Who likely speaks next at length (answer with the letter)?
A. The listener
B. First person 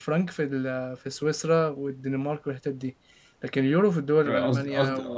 A